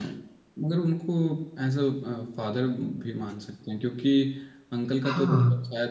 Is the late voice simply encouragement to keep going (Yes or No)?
Yes